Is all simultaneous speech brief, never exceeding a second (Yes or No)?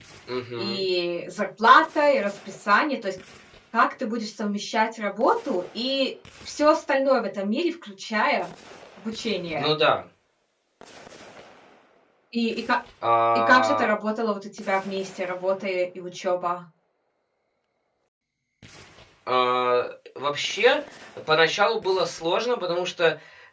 Yes